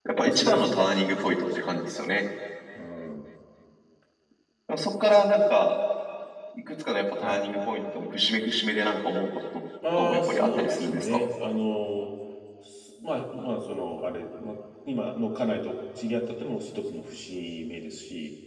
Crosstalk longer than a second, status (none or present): present